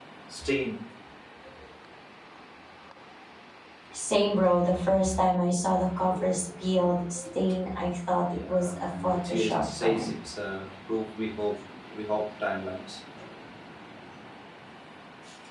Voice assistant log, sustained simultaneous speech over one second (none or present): present